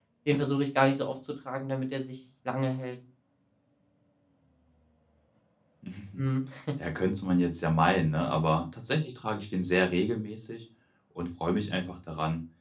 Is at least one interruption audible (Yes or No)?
No